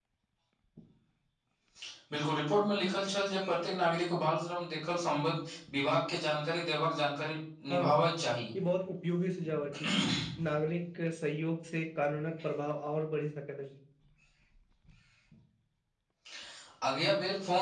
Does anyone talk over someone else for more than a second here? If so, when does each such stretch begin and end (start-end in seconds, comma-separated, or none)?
none